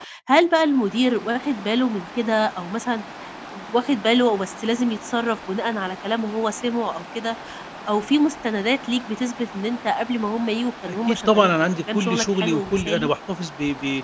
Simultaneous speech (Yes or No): Yes